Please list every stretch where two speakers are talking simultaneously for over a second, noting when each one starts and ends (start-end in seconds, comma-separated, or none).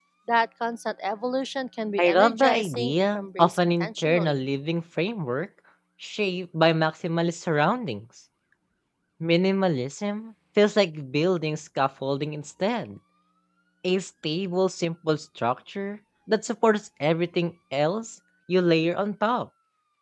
2.0-4.4